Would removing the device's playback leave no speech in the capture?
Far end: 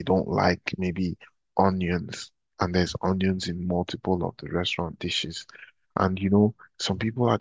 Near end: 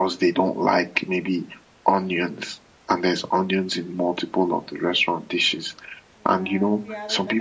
No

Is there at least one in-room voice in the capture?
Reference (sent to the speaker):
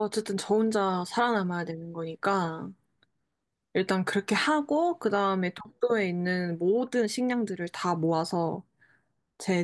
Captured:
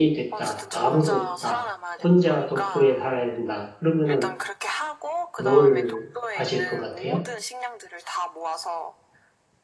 Yes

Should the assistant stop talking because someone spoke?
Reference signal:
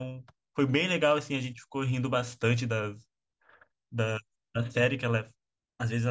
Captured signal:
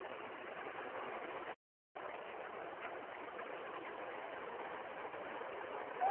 No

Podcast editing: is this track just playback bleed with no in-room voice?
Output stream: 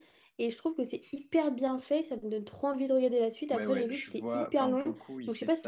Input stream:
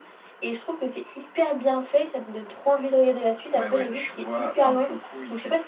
Yes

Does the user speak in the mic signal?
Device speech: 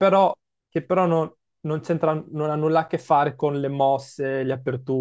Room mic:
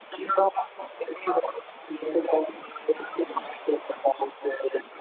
No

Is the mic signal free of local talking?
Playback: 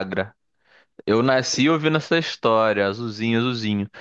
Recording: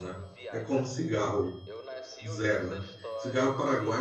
No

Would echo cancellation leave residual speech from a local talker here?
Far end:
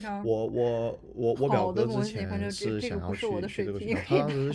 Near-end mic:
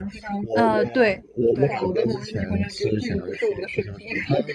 Yes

